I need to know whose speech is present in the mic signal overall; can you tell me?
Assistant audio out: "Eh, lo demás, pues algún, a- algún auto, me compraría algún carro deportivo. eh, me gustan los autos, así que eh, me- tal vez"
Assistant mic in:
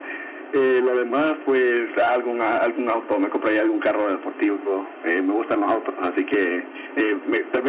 echo only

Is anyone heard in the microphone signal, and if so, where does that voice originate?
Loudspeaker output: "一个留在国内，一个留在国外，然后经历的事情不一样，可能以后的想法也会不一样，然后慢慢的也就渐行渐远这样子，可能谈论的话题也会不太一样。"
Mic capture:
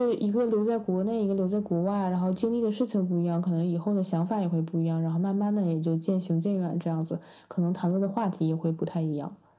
echo only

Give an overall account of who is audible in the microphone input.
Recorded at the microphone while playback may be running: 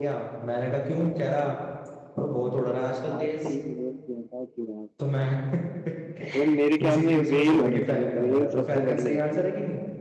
both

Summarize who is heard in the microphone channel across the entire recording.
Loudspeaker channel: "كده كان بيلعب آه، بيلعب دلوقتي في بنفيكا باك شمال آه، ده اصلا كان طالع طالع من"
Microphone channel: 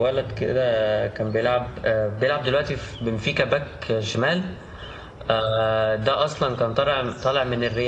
echo only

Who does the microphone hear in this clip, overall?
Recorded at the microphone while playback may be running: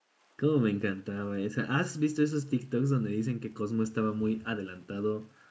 user only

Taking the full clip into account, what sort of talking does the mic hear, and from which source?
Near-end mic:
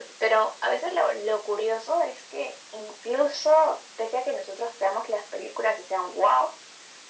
echo only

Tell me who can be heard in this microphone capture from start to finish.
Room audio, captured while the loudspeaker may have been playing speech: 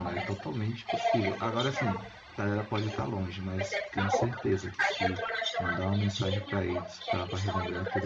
both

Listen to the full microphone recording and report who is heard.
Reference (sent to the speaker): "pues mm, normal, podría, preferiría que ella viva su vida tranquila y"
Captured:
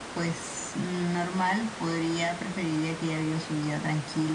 echo only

